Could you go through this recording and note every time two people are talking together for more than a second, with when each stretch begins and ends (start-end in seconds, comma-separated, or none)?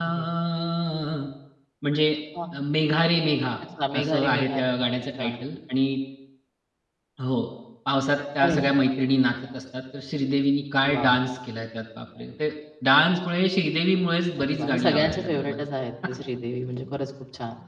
4.0-5.4, 14.4-15.6